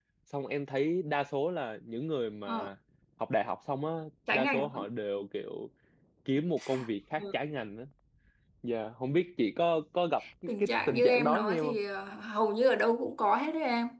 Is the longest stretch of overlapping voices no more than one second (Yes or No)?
No